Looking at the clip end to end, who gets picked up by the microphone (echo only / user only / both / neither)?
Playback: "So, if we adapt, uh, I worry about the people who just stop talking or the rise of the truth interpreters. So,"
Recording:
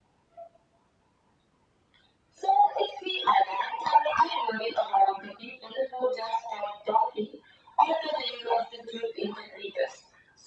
echo only